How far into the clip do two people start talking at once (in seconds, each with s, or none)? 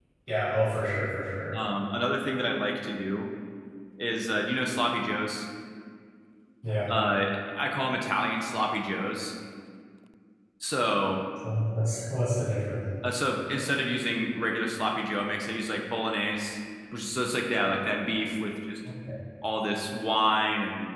none